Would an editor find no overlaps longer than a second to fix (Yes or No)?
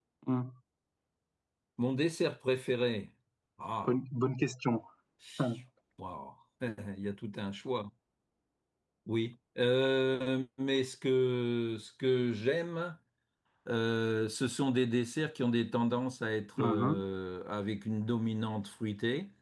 Yes